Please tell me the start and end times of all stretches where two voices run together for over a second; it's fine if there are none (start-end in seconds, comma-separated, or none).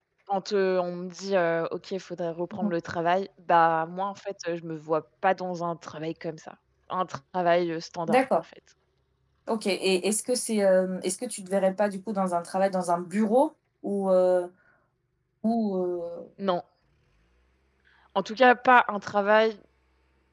none